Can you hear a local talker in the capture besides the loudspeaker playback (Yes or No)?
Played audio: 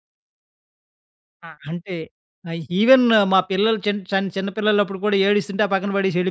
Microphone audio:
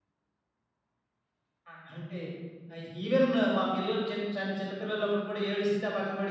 No